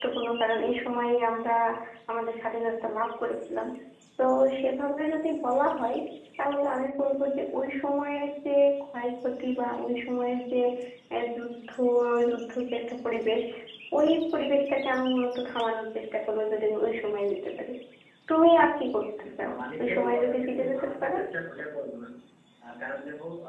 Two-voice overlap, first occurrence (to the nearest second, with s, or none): 19 s